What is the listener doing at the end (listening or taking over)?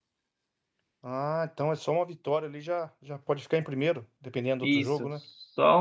taking over